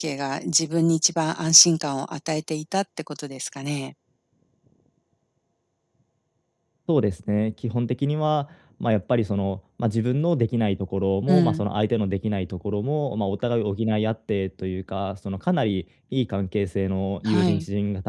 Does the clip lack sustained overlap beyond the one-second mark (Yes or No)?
Yes